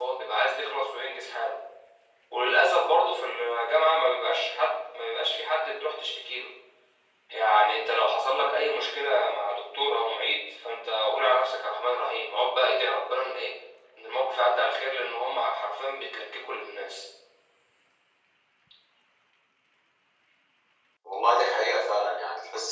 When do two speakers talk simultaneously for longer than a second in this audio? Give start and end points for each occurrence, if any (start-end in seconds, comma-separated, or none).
none